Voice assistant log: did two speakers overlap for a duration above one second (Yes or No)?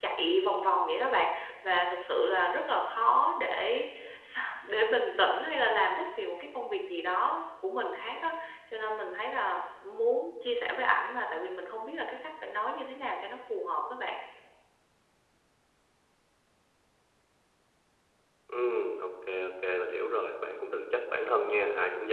No